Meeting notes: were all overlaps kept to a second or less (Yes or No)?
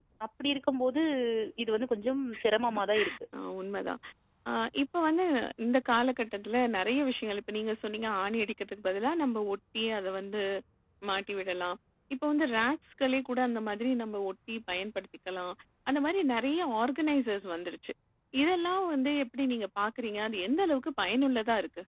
Yes